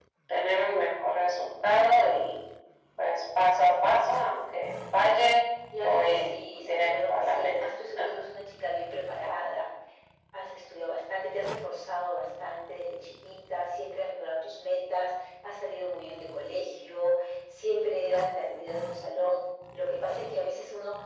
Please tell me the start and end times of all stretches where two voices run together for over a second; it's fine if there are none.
5.8-7.5

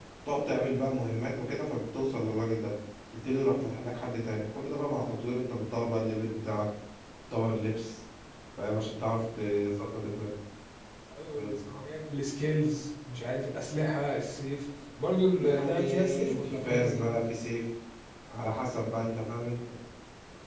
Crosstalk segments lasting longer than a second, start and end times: 15.4-17.1

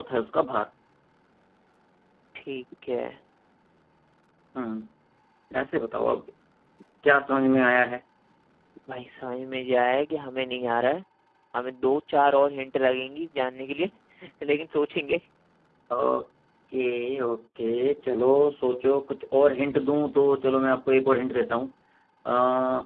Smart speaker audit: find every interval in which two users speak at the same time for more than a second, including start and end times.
none

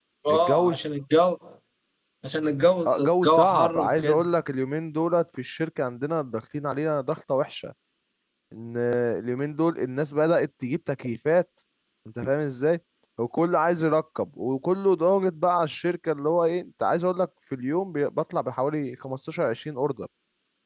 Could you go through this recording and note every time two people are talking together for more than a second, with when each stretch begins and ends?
2.9-4.3

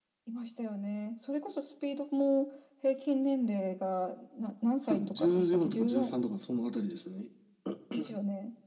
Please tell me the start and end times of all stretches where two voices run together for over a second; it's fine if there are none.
4.9-6.1

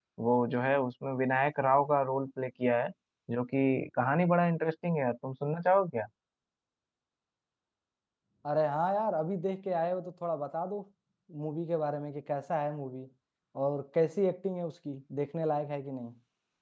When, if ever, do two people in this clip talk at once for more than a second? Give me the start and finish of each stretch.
none

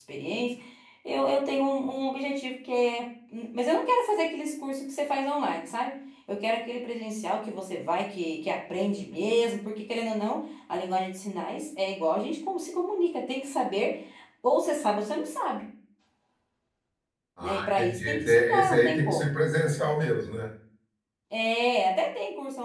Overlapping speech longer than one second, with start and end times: 17.4-19.3

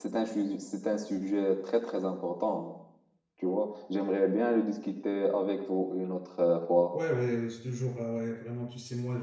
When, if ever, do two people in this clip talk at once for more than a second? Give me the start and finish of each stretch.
none

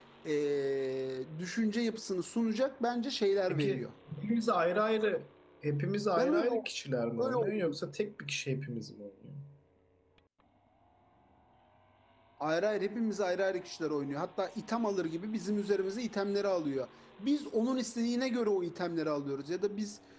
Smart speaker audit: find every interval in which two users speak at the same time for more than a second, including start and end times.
none

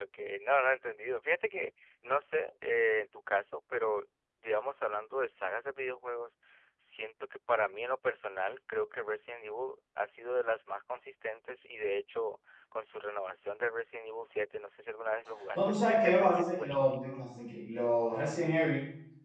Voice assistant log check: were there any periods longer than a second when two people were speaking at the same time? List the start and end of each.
15.6-17.1

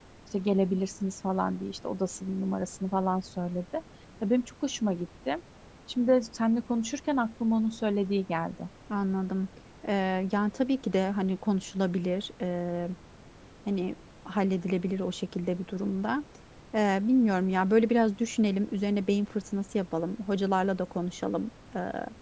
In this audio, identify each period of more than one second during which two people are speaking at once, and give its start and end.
none

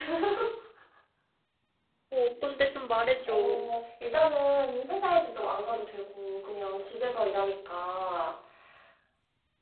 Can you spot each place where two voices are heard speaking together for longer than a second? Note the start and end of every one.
none

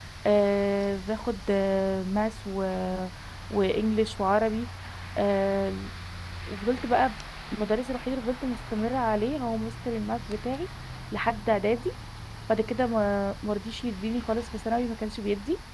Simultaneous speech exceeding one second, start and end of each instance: none

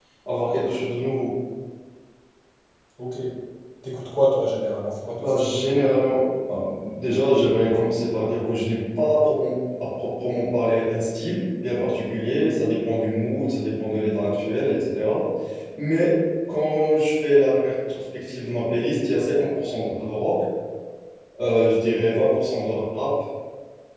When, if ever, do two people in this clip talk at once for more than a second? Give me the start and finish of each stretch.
none

